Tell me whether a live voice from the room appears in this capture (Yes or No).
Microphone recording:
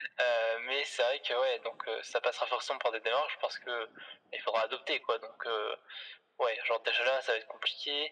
No